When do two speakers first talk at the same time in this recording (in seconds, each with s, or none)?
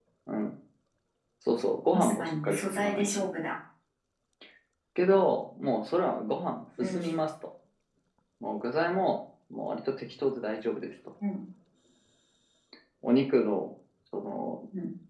1.9 s